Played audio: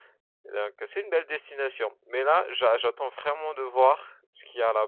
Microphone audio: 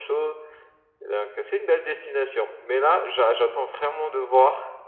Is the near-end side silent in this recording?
Yes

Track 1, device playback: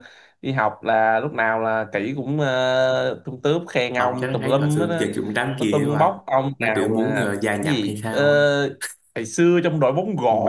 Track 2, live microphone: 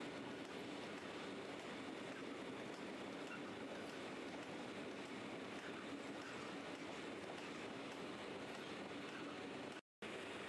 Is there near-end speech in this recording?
No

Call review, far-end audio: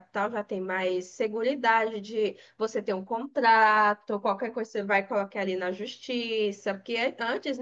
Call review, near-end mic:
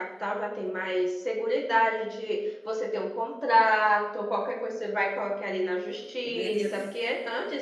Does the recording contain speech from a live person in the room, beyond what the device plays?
Yes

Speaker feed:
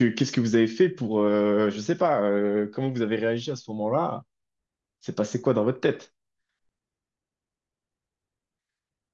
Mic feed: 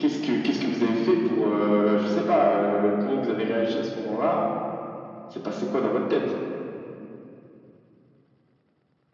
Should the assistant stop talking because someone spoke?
No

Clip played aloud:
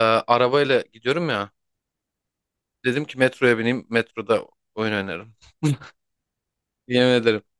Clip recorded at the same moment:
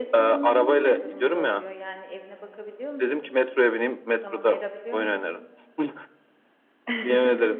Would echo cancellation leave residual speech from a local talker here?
Yes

